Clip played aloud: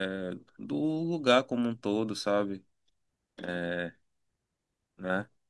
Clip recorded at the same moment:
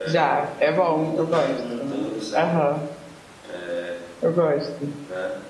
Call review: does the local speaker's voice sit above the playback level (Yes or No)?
Yes